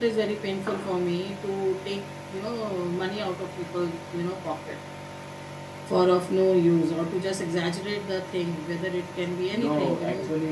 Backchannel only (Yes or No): No